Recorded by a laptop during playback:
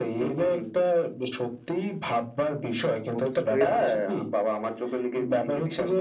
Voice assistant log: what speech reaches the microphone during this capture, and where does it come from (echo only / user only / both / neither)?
both